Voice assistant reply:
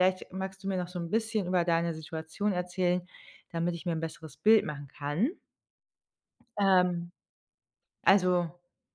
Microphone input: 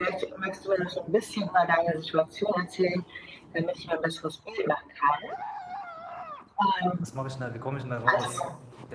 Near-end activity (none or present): present